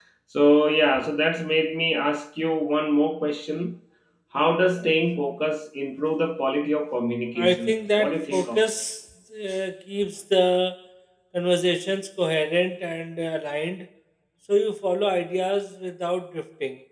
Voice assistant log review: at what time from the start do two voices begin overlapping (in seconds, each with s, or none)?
7.4 s